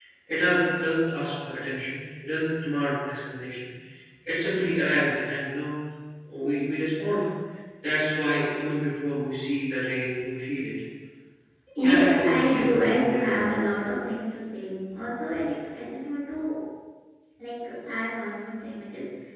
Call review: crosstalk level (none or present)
present